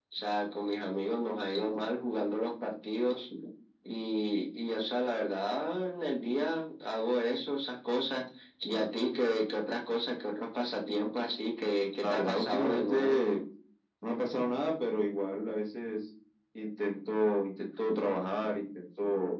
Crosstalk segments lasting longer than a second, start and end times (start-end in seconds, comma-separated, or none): 12.0-13.2